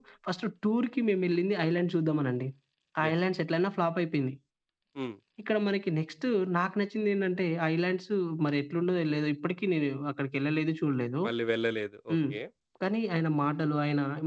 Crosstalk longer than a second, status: none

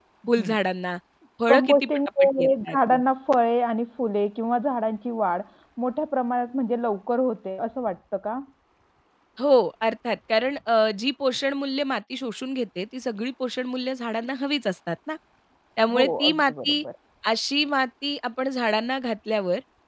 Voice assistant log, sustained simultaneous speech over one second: present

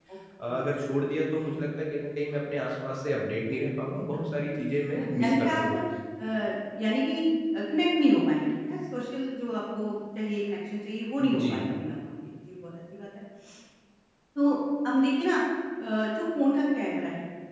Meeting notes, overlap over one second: present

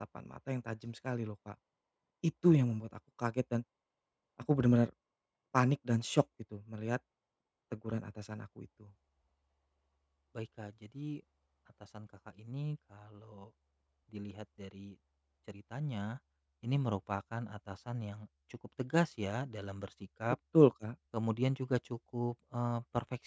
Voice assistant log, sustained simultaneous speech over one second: none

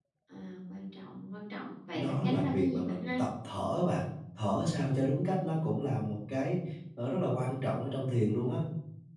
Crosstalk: present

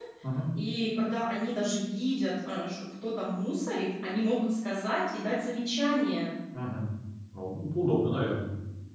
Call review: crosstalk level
none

